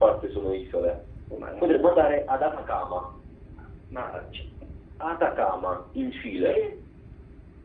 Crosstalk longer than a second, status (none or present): none